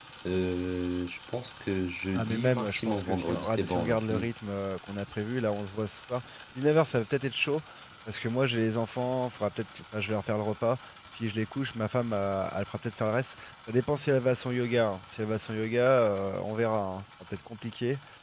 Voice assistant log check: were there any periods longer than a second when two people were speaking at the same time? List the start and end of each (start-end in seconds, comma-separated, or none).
2.1-4.3